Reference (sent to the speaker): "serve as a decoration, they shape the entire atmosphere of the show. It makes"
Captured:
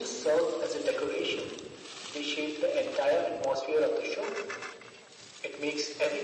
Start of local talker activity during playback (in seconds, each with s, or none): none